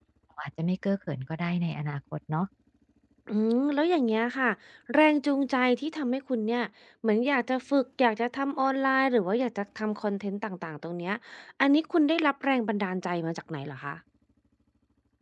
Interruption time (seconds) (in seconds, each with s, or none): none